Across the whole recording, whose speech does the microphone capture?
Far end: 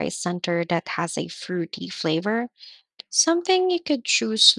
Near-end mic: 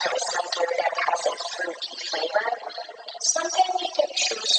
echo only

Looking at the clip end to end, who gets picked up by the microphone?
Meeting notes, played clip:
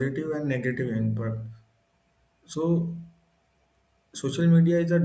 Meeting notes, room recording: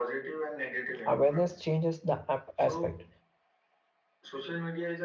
both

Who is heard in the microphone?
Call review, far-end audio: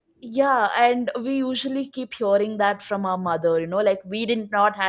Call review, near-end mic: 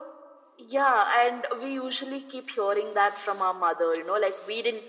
echo only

